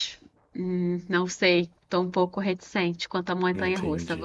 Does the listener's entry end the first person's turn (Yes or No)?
Yes